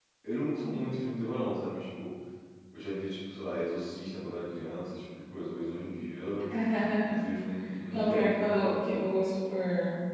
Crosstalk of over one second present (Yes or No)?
Yes